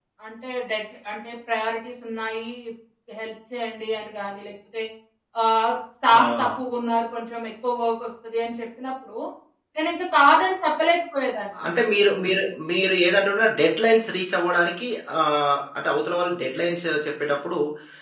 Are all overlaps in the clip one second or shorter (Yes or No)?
Yes